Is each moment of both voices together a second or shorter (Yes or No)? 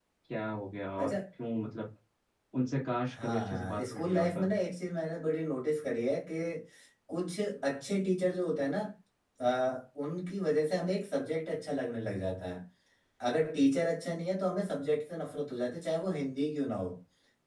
No